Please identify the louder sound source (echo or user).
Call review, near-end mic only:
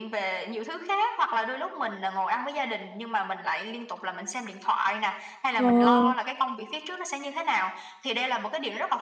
user